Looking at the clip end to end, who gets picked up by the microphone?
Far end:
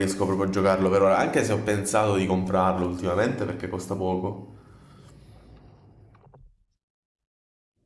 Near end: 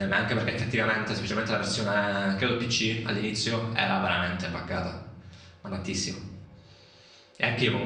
user only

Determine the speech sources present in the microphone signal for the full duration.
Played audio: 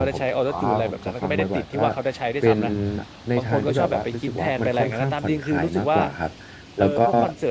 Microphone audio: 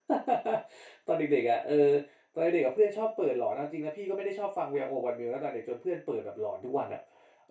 user only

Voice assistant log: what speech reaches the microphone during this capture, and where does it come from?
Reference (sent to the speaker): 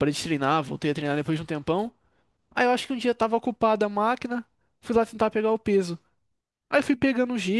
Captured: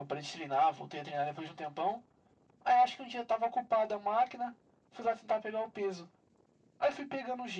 echo only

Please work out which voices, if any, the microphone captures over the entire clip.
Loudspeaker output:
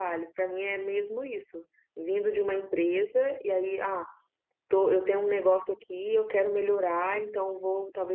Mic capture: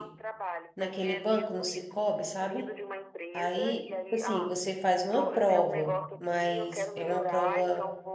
both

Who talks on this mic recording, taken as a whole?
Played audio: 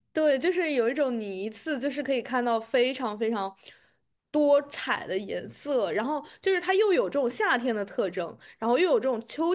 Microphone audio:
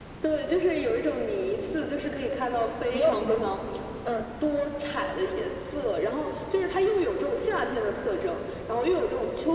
both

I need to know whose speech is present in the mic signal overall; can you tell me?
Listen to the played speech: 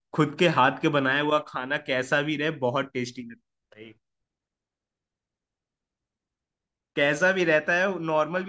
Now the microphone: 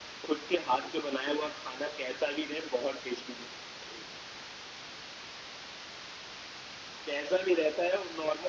echo only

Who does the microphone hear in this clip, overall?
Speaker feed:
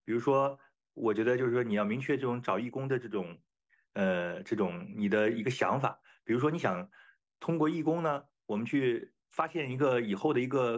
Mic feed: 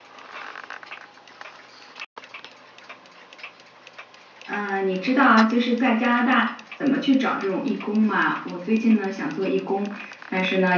user only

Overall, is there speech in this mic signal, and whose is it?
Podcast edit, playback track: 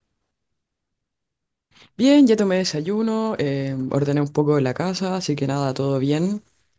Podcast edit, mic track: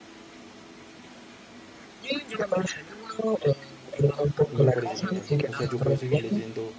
both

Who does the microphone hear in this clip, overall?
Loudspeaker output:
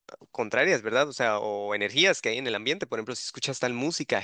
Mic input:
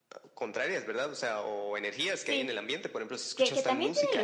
both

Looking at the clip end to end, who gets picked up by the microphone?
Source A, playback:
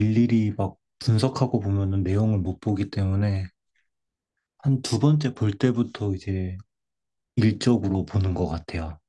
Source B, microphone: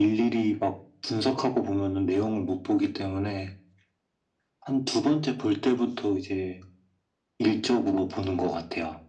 echo only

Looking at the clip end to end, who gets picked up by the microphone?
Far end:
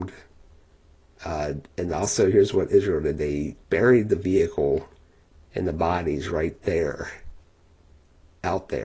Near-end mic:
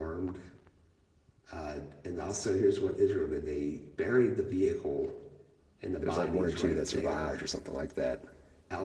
both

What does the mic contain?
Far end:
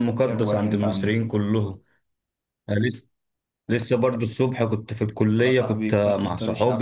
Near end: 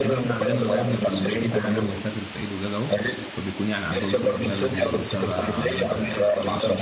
both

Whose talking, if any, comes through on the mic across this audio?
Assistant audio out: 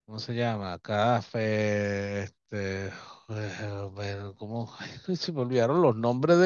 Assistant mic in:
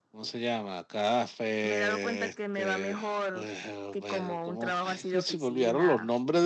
both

